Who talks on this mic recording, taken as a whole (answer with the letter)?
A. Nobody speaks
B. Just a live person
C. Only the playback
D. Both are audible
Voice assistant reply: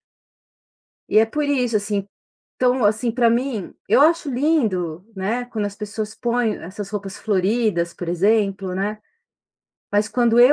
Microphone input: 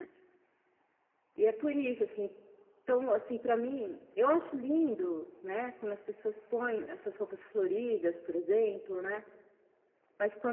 C